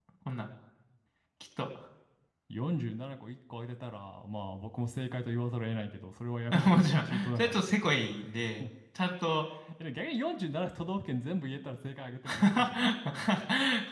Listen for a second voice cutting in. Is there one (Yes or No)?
Yes